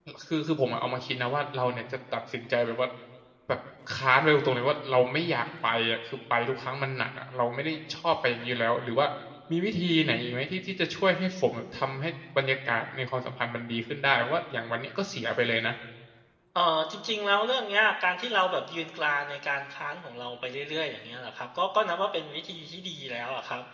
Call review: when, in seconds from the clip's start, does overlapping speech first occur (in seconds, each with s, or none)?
none